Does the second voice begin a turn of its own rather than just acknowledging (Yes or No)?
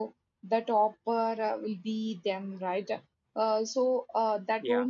No